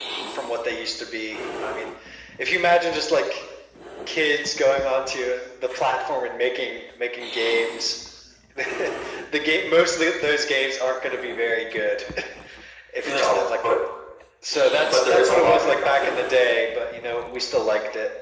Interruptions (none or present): present